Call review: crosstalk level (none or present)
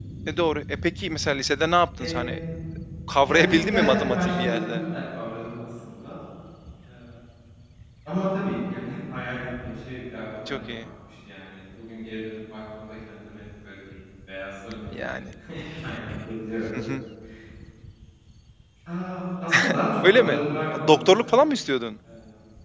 present